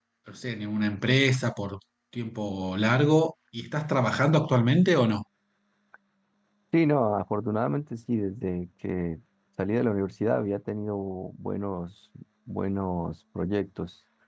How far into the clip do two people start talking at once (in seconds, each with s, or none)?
none